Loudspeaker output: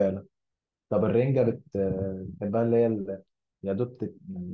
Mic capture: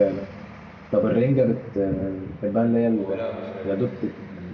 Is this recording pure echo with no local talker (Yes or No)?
No